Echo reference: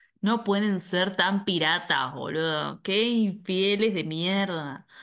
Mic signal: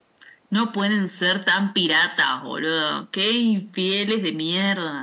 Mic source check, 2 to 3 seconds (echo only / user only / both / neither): echo only